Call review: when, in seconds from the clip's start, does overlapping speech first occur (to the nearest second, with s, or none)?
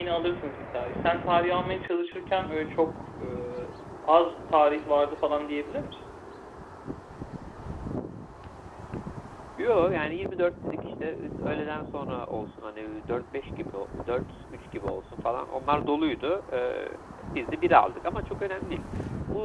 none